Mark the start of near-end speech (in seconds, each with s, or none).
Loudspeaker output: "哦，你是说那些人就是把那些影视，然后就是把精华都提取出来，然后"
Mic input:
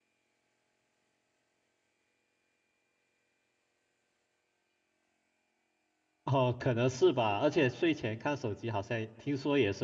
6.2 s